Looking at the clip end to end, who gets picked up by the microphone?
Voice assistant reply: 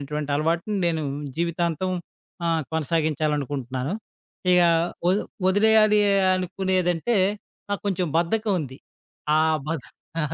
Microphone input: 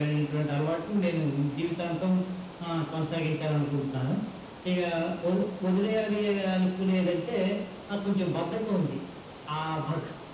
echo only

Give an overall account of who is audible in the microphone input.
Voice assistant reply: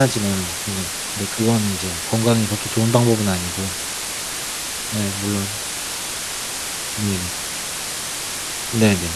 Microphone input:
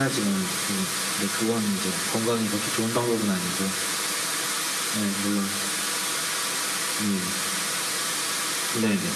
echo only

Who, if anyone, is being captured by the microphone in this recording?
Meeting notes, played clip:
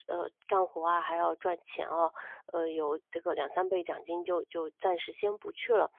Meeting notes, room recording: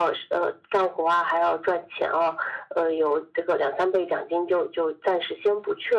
echo only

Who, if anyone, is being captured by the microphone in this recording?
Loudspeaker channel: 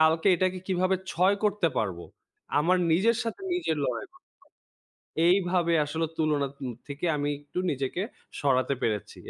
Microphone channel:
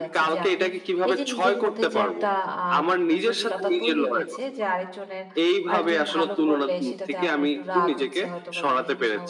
both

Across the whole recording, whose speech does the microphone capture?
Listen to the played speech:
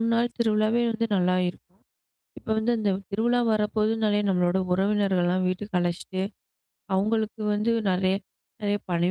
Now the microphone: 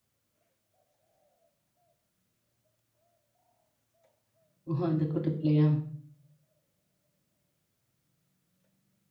user only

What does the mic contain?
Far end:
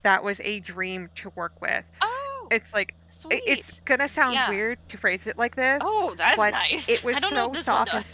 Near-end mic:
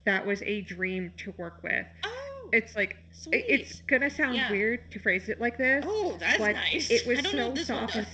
echo only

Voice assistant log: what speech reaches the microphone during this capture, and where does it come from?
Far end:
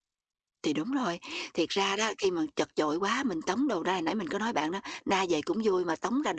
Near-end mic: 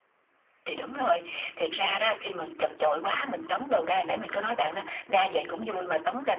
echo only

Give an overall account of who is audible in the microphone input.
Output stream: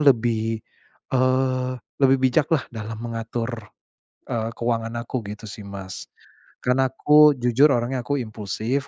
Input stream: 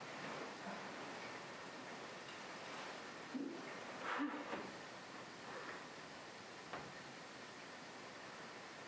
neither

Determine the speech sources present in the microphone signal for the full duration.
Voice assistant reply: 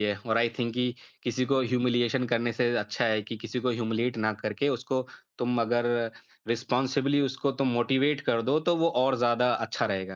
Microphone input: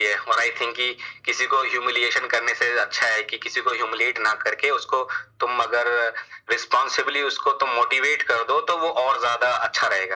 echo only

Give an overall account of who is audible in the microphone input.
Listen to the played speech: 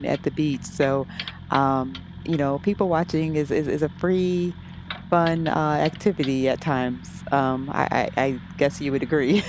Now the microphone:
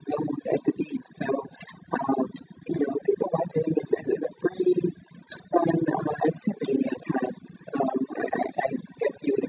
echo only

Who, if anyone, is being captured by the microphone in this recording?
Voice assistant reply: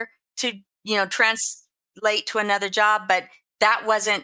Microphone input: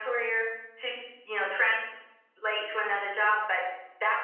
echo only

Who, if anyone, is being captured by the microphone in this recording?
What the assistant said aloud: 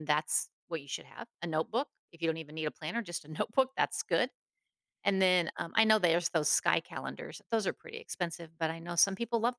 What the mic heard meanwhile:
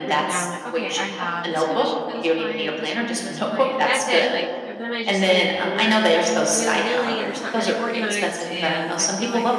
both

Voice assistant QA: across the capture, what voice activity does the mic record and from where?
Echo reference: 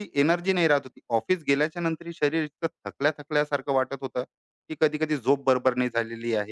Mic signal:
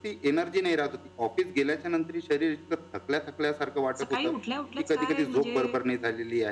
both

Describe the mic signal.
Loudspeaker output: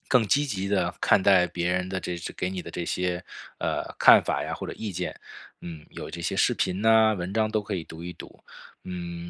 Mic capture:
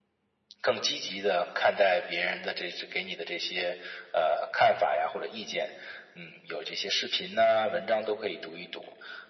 echo only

